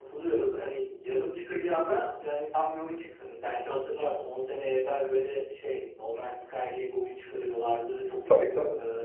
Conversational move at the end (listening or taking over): listening